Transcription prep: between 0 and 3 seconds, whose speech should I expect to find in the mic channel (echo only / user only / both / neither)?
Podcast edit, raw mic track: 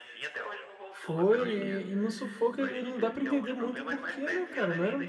both